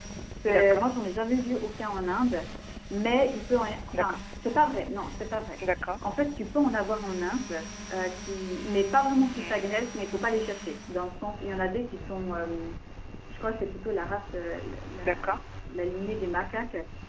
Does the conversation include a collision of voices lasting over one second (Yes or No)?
No